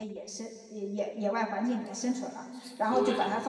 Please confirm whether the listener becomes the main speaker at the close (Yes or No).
No